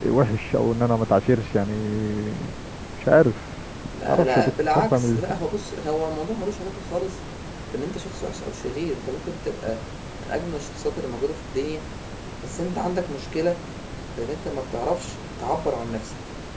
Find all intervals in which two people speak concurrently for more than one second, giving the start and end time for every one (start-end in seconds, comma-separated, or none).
4.1-5.3